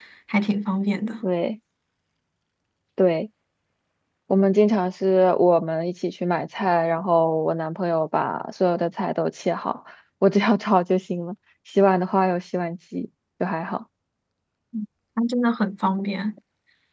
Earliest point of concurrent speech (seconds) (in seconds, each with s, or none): none